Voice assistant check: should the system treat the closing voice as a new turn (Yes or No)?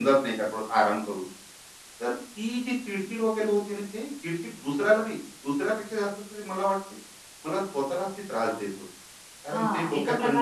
Yes